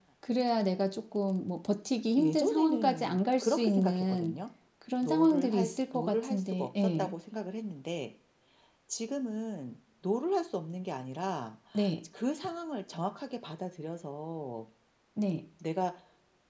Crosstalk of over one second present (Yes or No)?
Yes